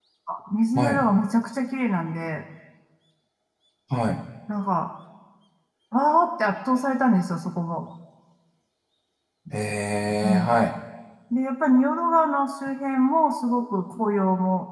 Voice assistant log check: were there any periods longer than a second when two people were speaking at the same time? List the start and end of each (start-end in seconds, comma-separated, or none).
none